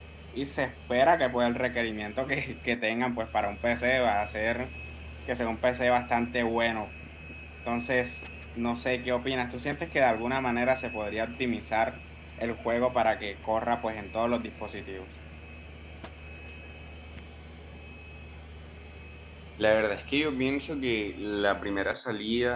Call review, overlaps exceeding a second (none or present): none